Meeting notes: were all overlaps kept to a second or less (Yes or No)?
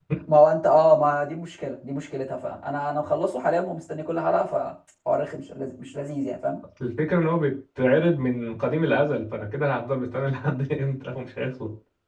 Yes